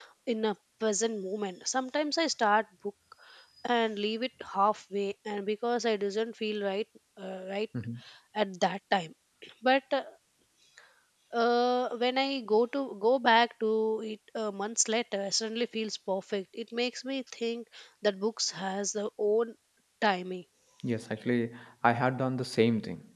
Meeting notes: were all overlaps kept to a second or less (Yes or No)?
Yes